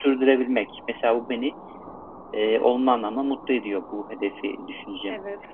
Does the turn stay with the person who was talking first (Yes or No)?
No